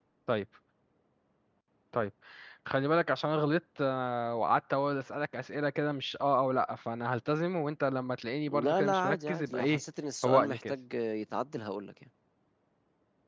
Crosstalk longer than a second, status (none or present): present